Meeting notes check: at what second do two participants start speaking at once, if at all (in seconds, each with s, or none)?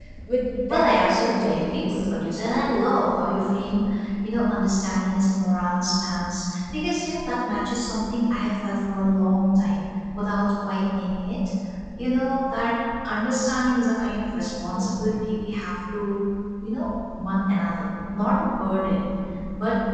0.7 s